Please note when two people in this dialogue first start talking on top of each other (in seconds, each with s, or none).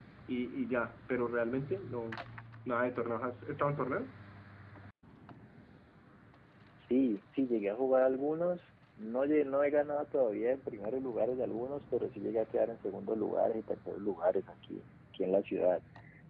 none